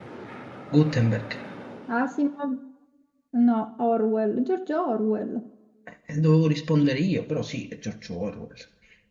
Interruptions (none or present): none